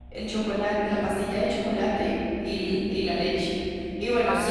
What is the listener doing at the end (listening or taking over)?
listening